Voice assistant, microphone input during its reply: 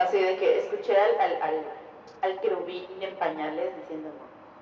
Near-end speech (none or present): none